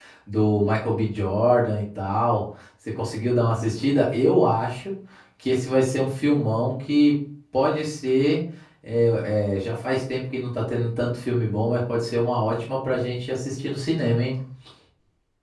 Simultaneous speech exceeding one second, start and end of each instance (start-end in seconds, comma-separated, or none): none